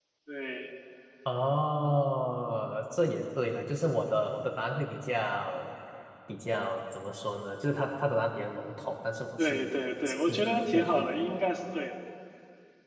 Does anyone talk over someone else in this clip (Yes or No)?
Yes